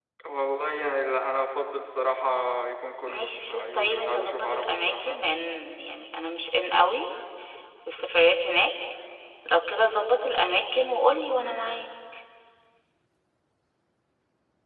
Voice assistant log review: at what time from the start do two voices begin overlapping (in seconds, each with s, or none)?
3.1 s